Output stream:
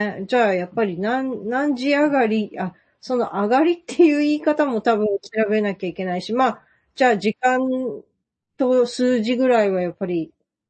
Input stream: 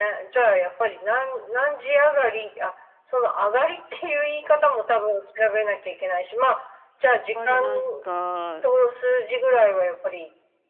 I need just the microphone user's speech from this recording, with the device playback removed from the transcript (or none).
ぱりなんか、